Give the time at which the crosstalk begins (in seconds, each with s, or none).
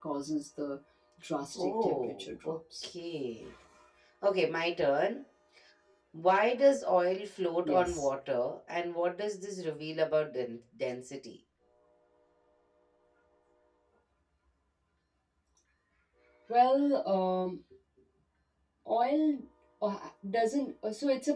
1.6 s